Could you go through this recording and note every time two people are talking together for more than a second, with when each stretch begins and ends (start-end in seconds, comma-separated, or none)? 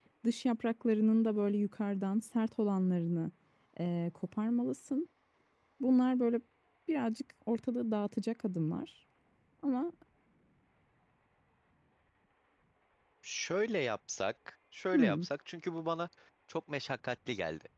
none